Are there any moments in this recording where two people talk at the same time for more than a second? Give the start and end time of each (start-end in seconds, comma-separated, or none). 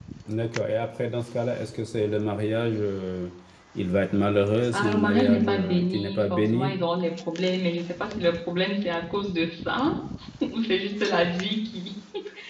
4.7-6.7